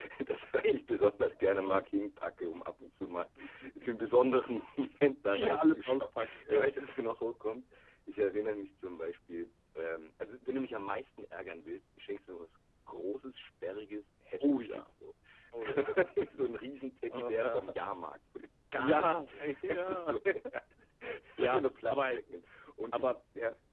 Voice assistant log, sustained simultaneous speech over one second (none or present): present